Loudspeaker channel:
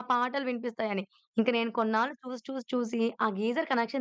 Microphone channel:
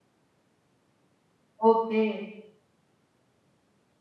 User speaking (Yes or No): Yes